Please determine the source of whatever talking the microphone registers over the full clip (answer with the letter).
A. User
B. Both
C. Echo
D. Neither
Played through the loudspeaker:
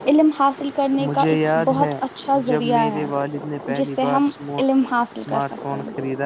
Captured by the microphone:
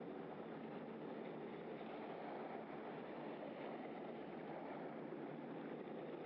D